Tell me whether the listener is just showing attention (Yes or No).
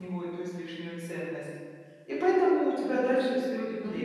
No